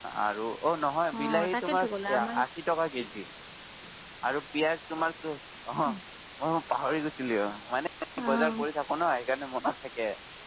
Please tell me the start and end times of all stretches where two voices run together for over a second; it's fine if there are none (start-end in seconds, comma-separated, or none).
1.2-2.4